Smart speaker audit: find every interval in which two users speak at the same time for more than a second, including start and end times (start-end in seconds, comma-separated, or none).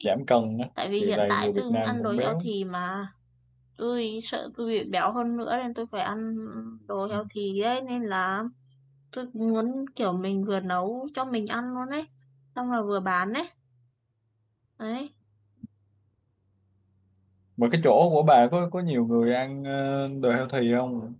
1.0-2.4